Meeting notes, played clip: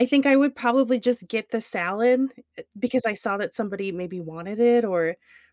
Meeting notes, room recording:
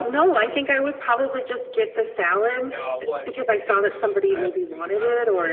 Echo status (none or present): present